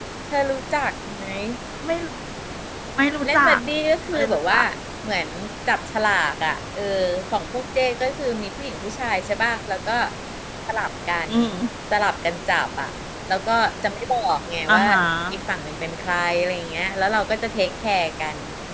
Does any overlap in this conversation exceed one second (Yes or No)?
No